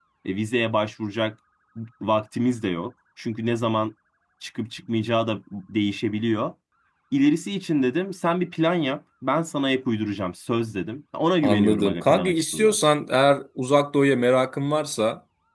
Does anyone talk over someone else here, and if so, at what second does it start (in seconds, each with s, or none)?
11.4 s